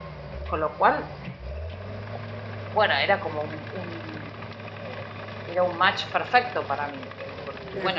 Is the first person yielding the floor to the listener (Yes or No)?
No